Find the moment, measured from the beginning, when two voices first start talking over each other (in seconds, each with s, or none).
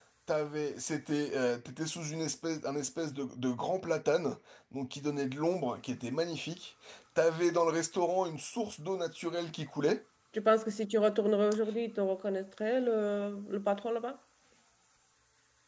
none